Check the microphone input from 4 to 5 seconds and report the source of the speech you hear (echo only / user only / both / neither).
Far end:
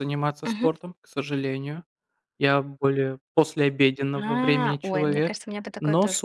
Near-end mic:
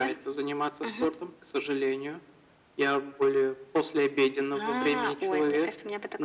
echo only